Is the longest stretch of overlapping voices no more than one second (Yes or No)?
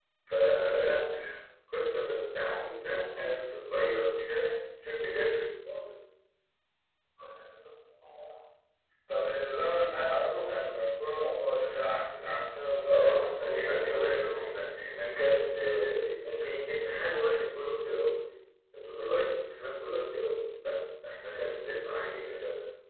No